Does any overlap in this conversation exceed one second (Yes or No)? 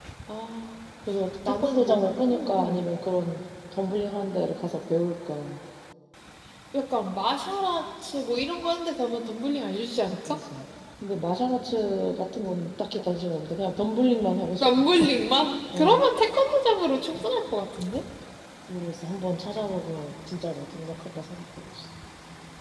Yes